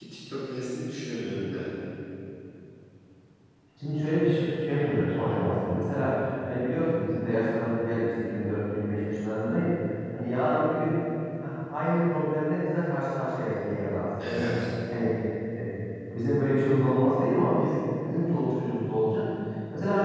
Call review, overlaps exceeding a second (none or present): none